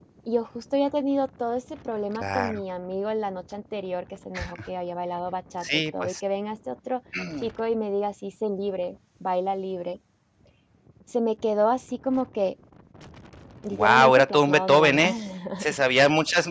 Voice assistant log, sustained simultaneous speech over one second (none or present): present